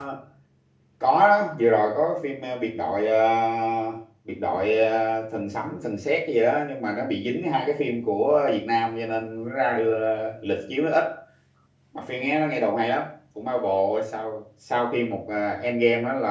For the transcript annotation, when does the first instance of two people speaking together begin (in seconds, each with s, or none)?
none